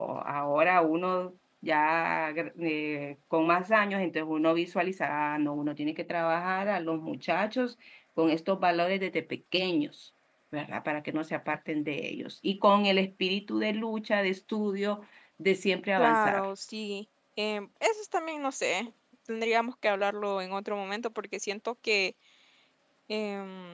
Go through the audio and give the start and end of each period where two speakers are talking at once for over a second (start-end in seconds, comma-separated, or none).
none